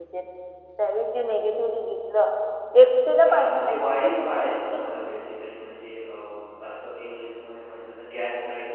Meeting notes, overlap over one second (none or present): present